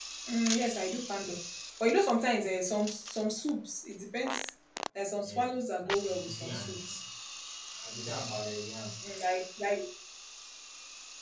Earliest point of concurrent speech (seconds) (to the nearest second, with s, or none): 5 s